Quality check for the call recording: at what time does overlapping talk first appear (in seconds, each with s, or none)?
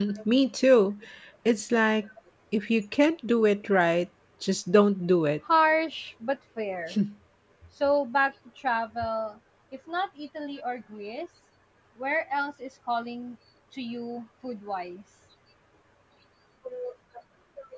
none